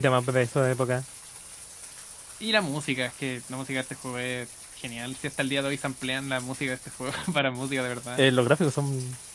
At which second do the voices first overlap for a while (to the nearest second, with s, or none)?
none